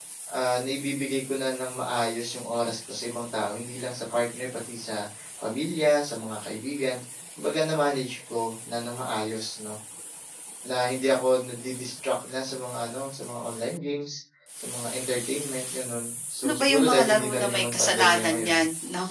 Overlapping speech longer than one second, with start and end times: 16.4-18.6

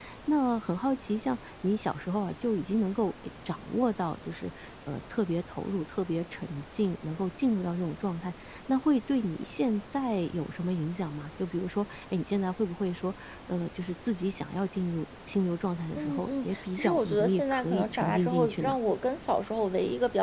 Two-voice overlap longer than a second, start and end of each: 16.0-18.7

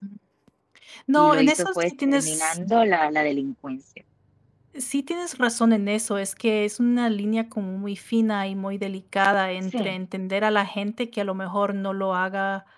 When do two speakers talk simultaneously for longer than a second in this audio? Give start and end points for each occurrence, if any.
1.1-2.6

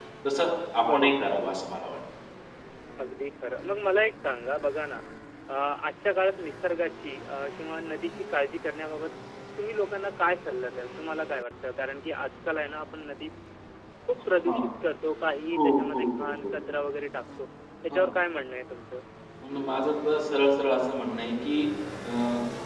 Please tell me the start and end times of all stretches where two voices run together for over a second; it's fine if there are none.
15.5-16.8

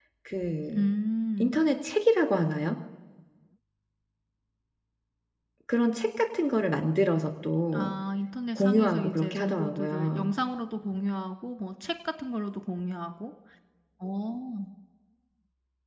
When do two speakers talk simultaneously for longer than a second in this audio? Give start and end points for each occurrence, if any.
8.6-10.3

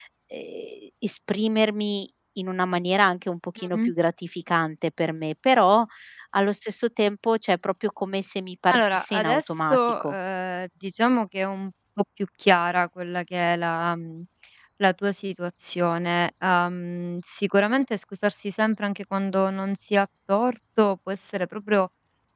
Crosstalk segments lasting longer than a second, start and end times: 8.7-10.1

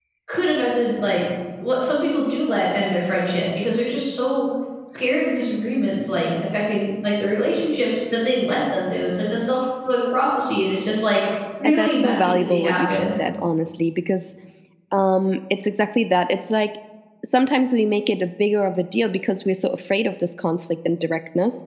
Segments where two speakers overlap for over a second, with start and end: 11.6-13.1

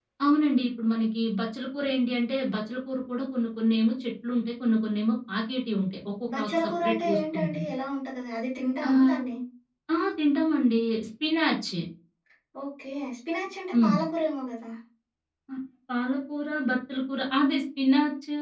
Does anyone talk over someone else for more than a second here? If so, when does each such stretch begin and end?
6.4-7.7

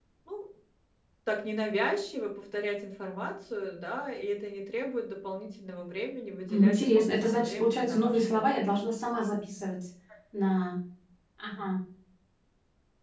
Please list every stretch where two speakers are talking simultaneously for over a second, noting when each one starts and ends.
6.5-8.6

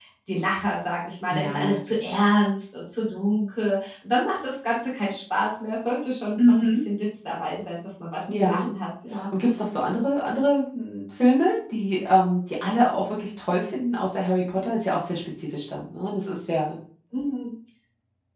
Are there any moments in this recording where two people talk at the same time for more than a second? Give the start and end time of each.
none

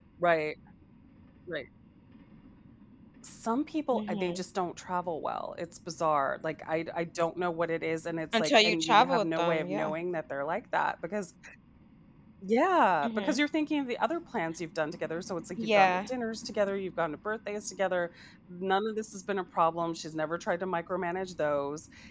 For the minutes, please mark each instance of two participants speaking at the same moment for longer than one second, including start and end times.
8.3-9.9

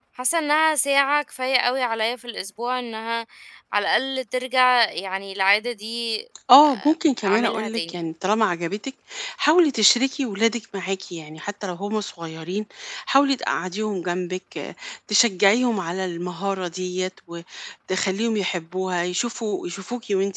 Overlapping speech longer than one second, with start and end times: 6.6-8.0

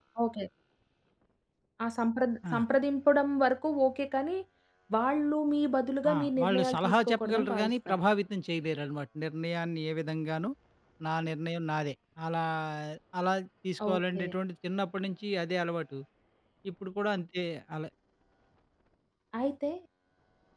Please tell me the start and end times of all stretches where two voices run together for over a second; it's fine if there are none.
6.1-8.0

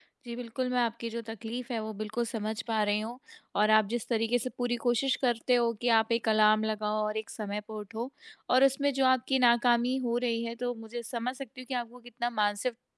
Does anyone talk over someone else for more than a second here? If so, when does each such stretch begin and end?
none

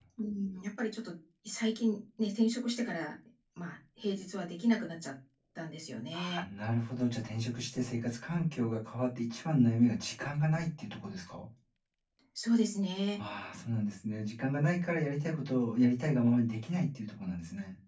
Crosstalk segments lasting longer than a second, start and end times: none

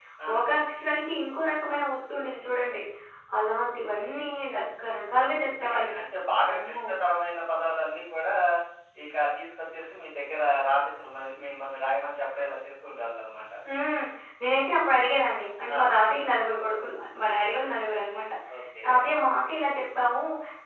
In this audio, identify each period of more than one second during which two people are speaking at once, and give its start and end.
none

